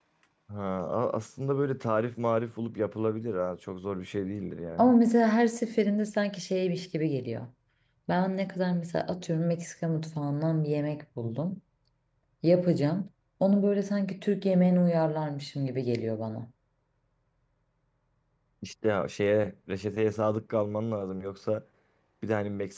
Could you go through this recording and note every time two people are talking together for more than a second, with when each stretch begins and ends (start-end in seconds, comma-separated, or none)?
none